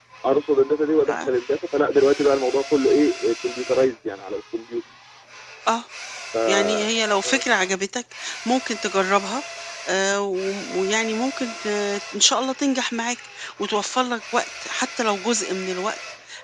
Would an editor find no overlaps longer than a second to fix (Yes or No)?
Yes